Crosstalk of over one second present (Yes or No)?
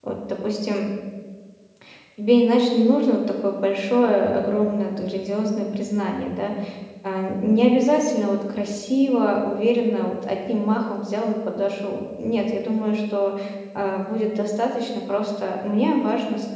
No